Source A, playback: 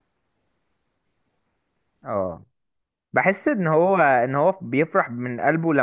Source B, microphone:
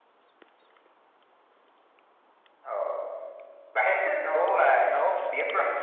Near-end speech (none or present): none